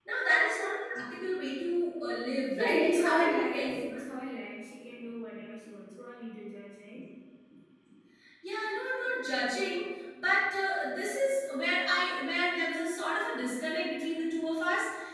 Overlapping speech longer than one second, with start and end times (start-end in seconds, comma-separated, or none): 2.6-3.8